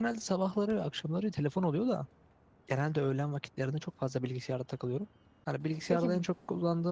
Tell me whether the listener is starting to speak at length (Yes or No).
No